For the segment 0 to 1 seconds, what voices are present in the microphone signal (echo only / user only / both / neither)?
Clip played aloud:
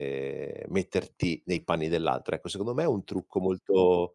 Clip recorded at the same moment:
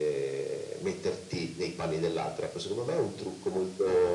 echo only